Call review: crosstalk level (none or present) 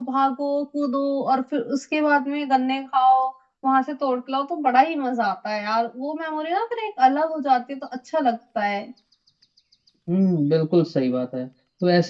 none